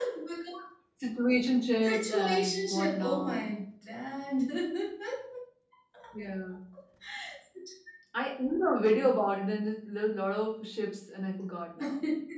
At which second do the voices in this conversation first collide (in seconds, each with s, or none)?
1.9 s